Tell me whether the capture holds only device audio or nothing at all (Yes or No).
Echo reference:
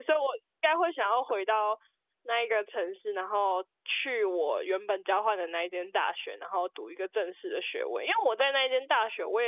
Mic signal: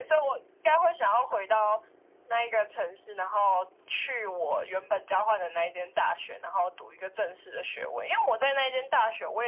Yes